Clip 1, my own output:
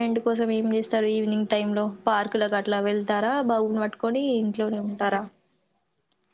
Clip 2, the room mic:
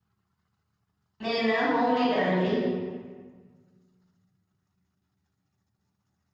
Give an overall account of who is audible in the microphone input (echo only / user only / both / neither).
user only